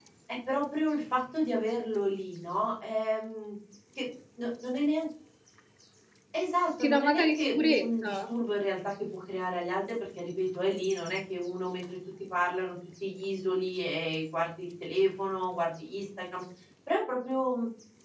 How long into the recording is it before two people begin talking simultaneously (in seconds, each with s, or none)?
6.8 s